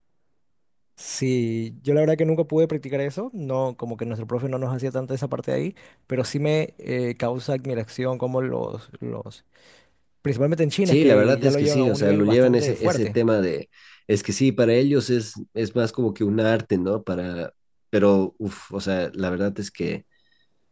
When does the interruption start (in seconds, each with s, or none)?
10.8 s